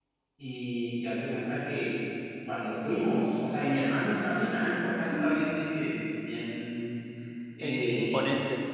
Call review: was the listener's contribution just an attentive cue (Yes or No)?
Yes